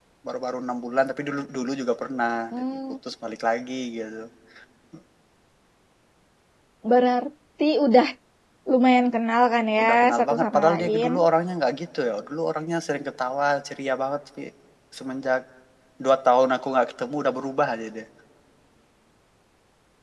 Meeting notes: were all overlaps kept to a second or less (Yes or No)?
No